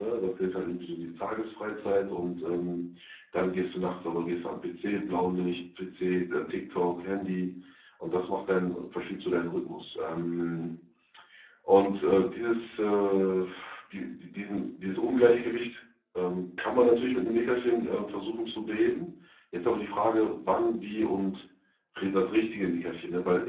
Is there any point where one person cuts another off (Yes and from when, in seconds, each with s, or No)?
No